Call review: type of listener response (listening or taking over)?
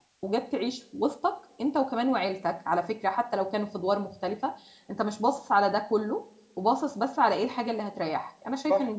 taking over